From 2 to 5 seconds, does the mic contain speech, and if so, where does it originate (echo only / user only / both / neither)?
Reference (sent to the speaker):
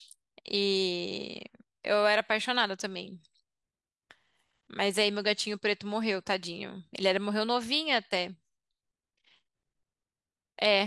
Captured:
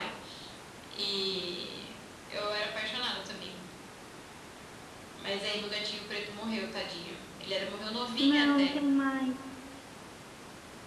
echo only